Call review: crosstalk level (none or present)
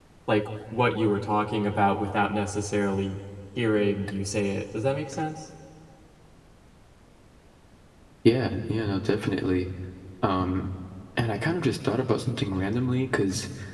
none